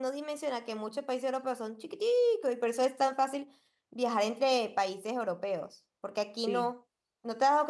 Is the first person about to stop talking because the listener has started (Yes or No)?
No